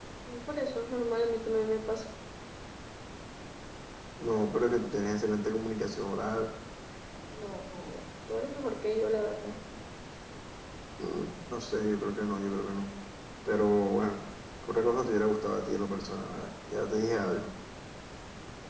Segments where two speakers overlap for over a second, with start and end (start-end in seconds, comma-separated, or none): none